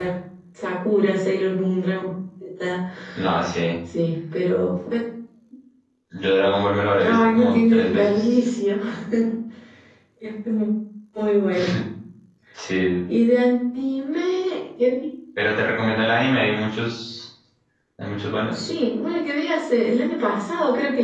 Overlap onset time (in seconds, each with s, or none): 7.0 s